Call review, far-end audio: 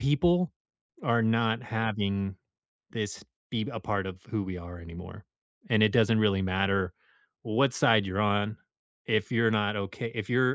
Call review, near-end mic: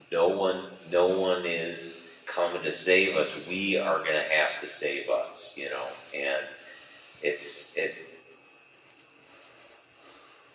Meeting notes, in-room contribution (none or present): present